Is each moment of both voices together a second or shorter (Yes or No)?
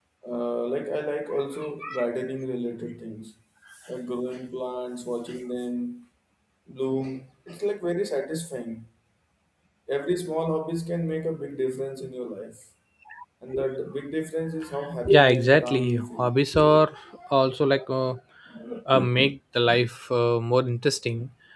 No